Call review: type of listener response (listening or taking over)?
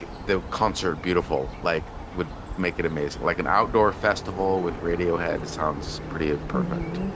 taking over